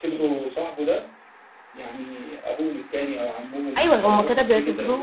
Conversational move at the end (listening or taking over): taking over